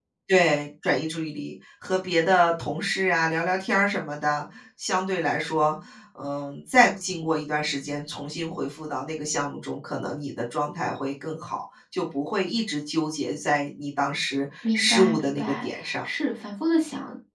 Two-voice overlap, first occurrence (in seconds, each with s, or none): 14.6 s